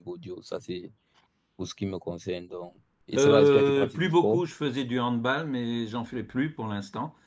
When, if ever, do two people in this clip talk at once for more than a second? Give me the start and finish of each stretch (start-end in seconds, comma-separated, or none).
3.2-4.4